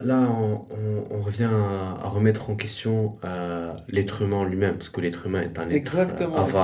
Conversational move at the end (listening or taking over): taking over